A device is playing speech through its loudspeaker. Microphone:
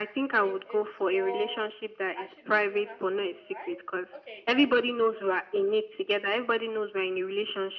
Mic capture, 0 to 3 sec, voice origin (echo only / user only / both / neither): both